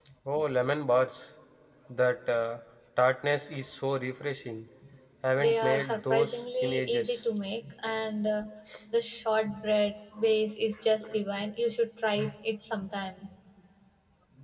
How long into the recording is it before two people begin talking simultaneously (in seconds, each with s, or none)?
5.4 s